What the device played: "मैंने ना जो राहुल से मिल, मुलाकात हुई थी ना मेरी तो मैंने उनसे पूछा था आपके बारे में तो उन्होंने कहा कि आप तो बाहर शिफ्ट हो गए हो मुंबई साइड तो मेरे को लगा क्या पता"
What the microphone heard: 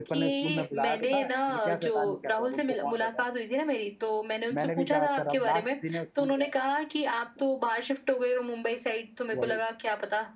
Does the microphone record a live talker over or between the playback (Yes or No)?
Yes